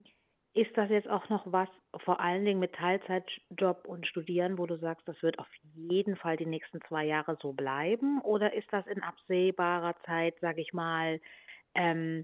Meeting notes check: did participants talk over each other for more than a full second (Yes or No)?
No